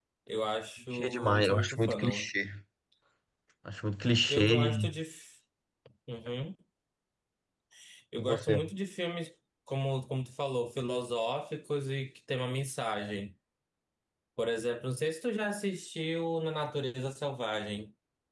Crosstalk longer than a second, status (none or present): present